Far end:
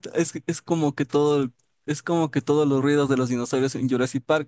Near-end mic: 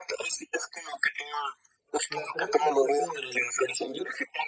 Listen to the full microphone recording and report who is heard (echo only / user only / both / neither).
both